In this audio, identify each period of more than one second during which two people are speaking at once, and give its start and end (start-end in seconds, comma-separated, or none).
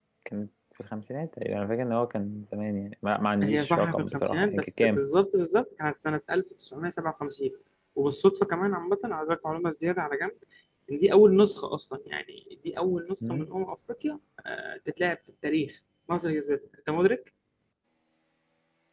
3.4-5.0